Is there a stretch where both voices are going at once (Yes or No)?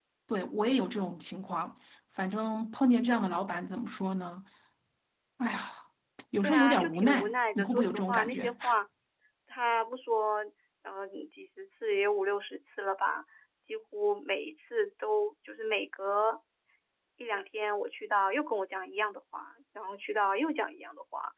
Yes